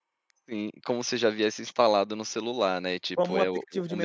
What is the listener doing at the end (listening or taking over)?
taking over